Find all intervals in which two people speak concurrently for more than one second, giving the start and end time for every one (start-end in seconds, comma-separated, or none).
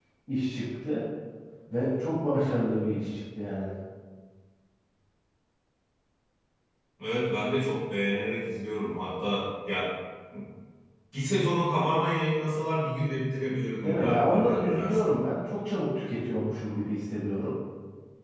13.8-15.2